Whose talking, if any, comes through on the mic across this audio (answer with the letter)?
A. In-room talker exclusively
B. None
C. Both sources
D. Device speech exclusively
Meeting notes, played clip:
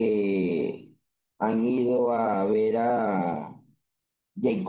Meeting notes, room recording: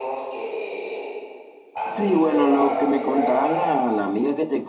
C